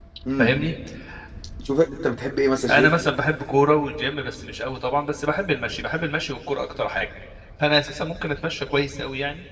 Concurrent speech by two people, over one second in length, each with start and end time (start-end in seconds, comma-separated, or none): none